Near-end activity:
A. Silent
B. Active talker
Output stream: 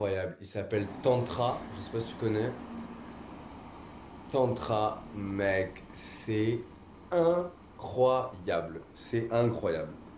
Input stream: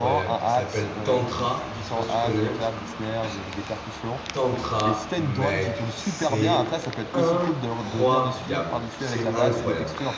B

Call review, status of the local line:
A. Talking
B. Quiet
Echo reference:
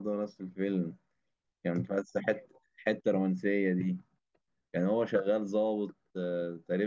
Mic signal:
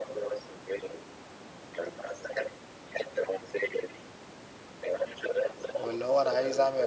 A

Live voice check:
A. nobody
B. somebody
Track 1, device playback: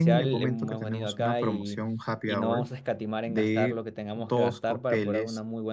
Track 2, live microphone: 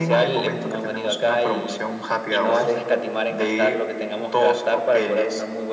B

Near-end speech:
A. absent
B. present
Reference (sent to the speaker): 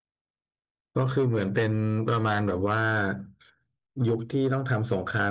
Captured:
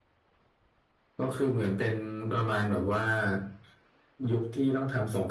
A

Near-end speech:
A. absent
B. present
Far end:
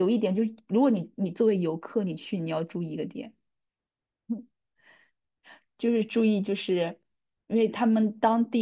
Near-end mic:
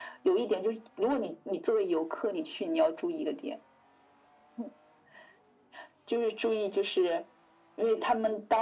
A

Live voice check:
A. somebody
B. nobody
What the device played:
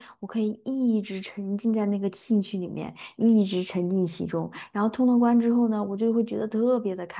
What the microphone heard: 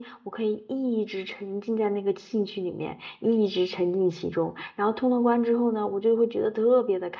B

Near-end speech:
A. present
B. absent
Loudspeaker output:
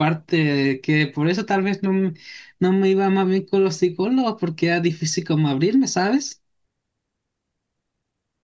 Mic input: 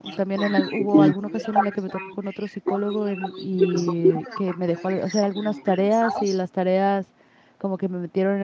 A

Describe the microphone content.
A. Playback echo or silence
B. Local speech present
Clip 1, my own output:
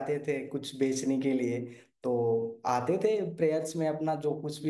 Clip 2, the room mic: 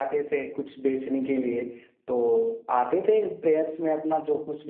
A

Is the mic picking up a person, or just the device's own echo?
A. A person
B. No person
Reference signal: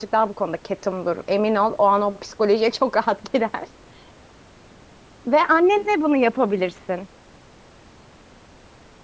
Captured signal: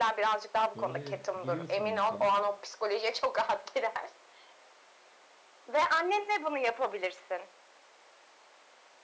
A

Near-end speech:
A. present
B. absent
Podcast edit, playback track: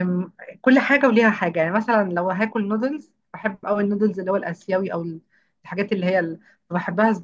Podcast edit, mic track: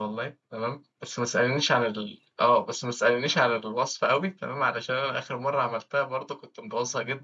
A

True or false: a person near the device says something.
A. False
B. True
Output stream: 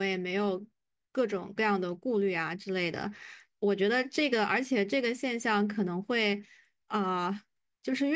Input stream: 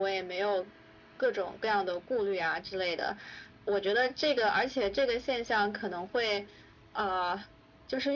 A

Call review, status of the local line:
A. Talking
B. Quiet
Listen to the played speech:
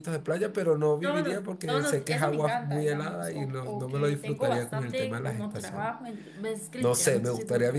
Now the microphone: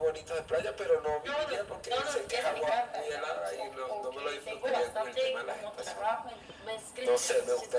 B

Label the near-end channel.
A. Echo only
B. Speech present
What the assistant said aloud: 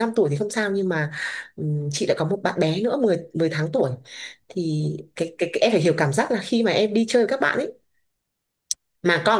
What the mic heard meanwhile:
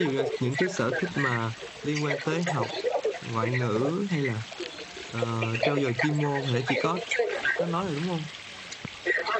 B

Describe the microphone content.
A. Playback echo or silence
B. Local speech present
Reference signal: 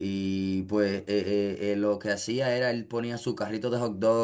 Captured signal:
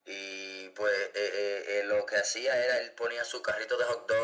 A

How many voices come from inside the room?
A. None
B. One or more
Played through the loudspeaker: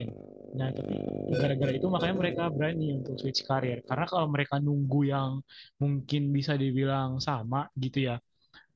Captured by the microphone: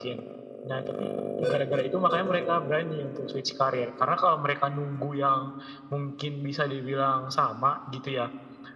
A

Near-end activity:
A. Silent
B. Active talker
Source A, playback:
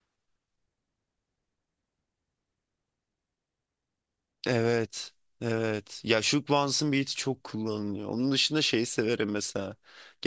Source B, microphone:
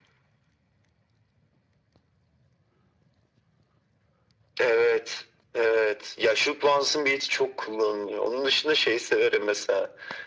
A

